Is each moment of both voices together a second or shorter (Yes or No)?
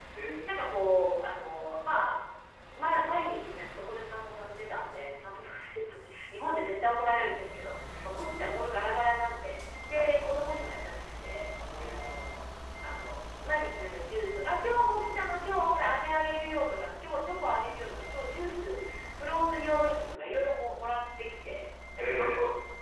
Yes